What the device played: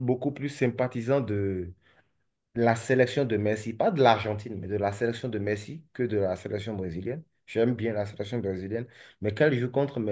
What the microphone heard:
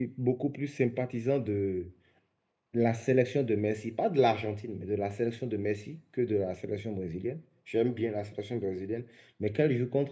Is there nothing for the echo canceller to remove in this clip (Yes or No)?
No